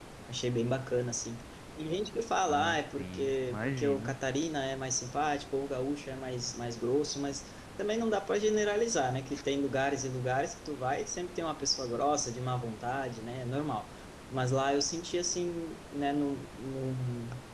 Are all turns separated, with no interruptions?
No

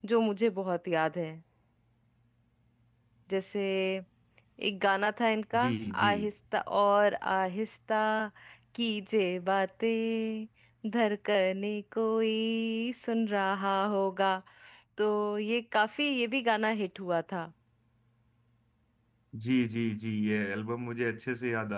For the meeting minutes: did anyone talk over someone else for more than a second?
No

